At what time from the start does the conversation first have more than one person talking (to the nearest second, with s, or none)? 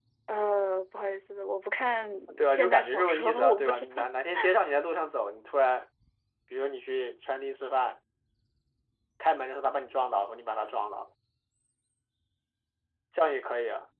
2 s